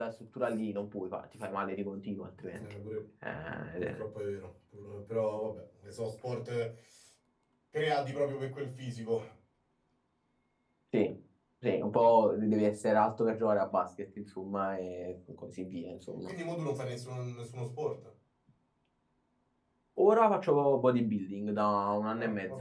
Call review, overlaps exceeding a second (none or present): none